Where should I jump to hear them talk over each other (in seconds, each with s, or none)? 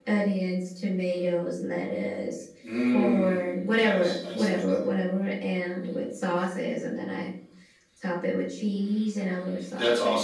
2.9 s